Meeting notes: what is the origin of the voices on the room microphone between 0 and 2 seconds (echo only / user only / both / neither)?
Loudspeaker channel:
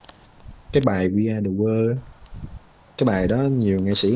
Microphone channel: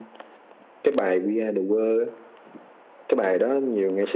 echo only